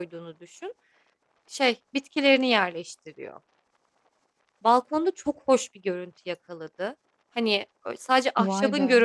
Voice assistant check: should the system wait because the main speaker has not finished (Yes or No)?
Yes